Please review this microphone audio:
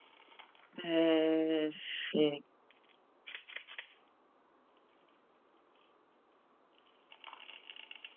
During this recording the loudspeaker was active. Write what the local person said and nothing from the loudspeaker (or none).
Eh, sì.